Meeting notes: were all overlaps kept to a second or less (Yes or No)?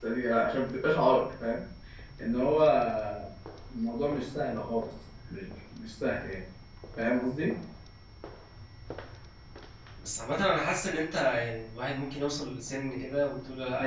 Yes